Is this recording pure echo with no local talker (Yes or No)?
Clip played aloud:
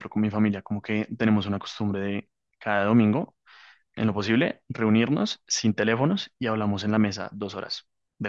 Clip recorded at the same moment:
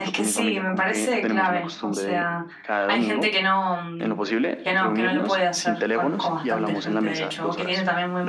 No